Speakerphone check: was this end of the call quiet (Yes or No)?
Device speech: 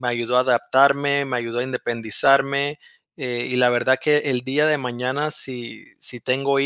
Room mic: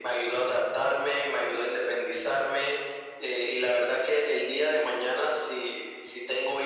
Yes